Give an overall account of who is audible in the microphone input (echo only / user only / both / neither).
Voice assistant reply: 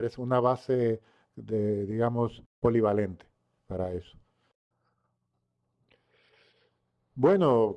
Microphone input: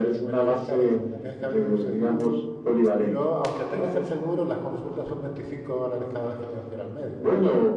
both